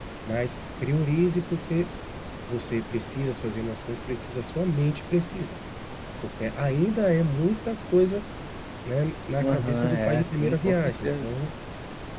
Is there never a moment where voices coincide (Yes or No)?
No